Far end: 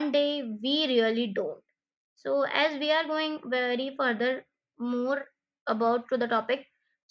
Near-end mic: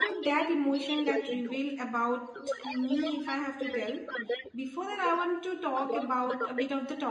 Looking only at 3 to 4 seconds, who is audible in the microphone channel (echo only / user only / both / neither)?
both